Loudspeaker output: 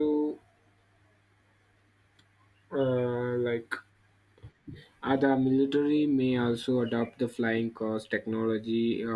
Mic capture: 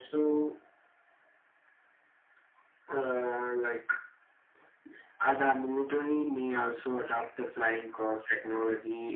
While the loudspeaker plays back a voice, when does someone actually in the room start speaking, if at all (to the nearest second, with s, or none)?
none